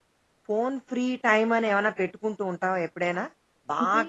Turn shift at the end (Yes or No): No